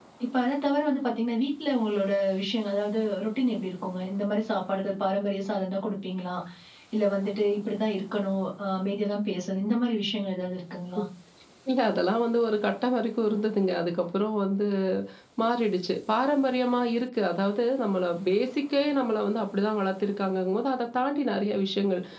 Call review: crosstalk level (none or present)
none